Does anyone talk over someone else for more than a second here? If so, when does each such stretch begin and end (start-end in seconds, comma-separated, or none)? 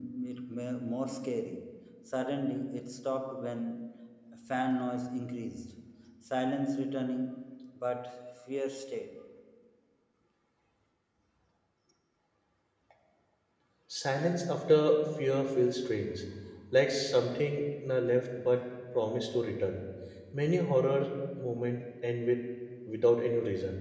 none